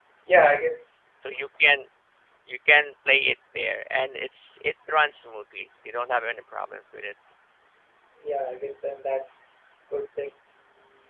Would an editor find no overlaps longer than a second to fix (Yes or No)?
Yes